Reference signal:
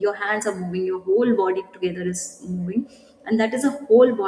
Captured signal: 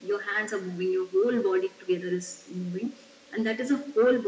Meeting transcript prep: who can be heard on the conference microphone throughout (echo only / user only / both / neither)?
echo only